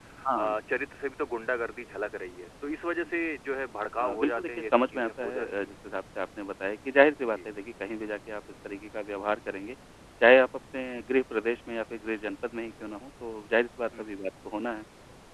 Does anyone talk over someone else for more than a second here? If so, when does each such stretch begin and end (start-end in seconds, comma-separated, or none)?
4.0-5.7